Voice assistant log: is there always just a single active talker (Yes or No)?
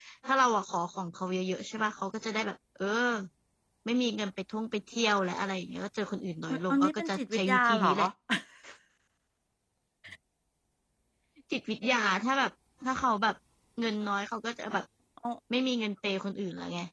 No